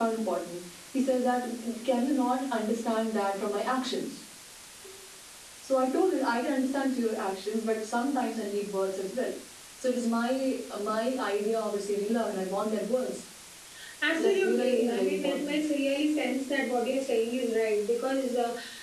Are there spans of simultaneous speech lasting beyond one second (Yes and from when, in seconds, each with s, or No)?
Yes, from 14.1 s